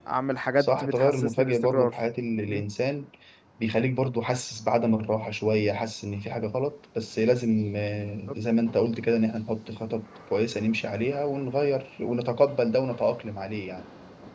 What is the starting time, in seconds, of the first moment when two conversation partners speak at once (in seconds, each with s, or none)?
0.6 s